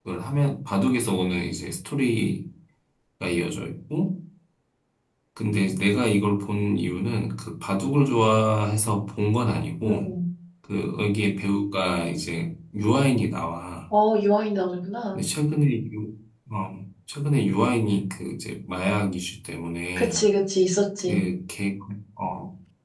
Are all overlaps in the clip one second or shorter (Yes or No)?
Yes